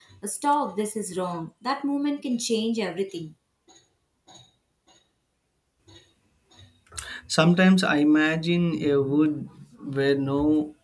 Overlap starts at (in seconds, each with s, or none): none